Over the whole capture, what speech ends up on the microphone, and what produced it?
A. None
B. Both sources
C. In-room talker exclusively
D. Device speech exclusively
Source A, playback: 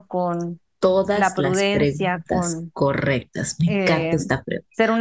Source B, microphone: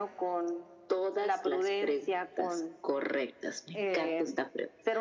D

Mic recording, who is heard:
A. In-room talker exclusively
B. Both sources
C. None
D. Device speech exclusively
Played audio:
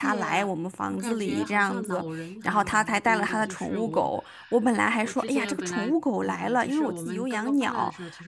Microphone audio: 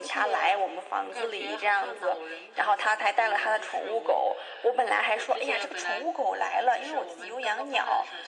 D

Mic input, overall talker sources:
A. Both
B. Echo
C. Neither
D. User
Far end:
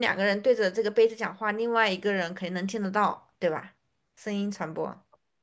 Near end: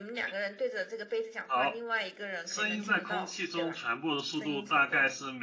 A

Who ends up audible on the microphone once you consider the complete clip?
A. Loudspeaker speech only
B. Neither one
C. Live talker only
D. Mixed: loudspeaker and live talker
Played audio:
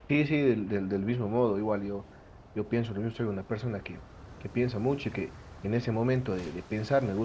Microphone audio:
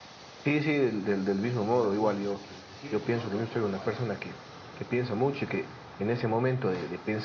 D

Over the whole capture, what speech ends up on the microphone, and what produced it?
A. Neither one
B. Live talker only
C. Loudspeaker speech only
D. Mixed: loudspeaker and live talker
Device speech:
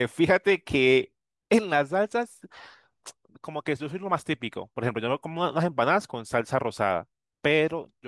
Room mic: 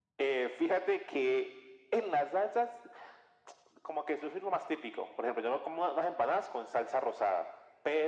C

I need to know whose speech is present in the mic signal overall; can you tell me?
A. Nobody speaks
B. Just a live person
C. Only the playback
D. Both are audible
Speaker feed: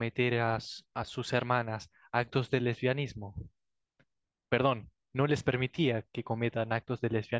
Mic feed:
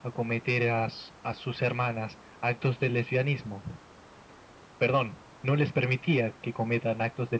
C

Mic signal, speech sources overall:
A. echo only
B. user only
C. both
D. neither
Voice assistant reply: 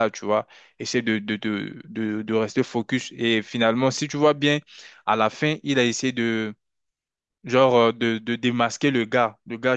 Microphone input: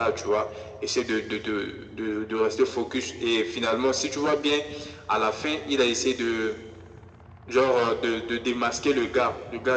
A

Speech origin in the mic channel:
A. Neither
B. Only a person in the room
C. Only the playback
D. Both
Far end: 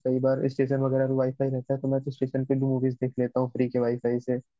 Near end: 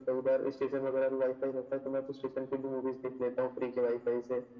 C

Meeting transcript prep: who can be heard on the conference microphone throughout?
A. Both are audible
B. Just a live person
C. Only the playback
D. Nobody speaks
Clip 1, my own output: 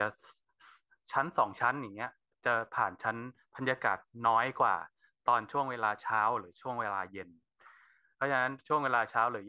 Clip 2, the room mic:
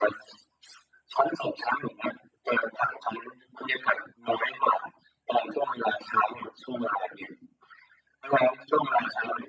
C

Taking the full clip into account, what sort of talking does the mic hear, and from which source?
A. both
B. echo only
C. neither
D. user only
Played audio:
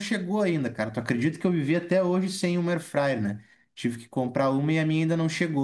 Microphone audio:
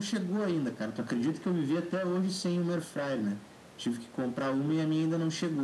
B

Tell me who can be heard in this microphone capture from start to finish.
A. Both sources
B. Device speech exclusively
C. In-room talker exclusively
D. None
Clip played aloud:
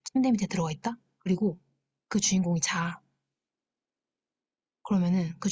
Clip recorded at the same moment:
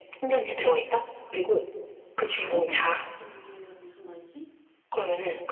A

